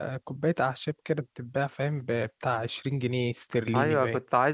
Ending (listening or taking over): taking over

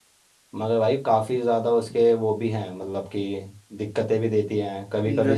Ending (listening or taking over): listening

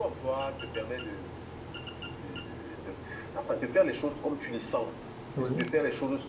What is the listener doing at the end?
listening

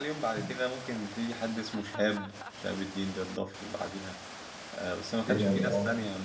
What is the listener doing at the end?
listening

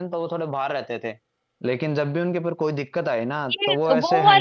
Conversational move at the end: taking over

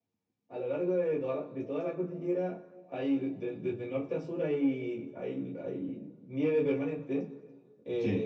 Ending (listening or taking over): listening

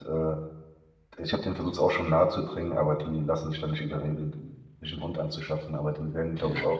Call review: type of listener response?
listening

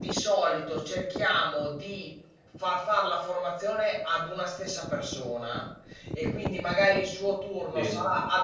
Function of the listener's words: listening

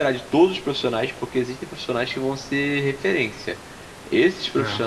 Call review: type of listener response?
listening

